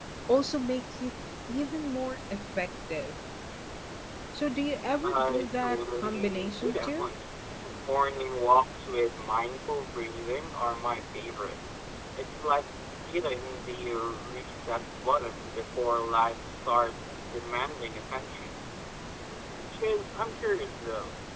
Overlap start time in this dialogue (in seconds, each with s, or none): 5.0 s